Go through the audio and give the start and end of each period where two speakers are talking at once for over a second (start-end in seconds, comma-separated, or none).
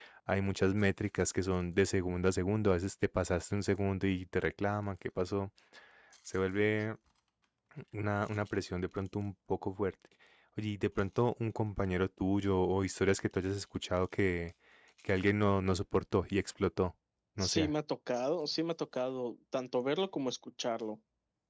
none